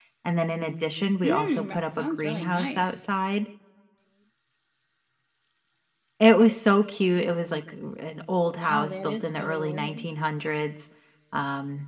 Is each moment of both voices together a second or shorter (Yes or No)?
No